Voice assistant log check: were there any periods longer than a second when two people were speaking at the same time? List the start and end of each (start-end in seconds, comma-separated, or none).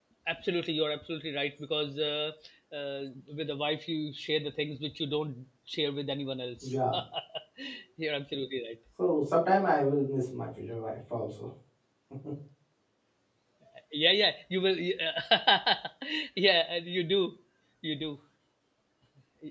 none